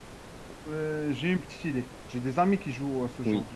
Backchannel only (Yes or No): No